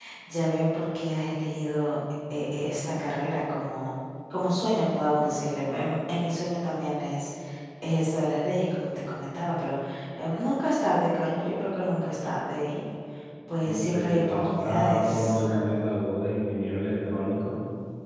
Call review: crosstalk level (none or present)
present